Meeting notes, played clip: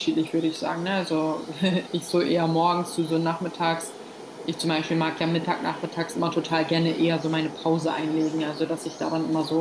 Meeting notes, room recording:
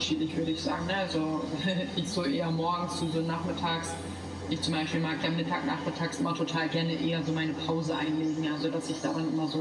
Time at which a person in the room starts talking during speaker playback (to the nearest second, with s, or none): none